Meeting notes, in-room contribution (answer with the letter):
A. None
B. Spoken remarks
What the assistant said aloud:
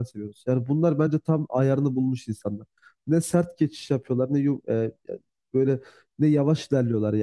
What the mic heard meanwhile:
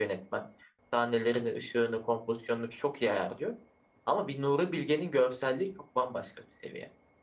B